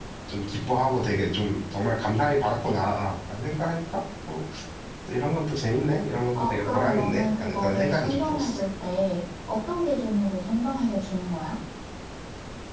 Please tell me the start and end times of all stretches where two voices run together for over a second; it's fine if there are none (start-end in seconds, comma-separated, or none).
6.4-8.6